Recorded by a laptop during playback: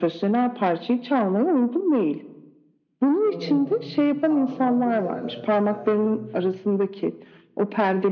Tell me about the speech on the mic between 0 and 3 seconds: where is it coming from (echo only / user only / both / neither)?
echo only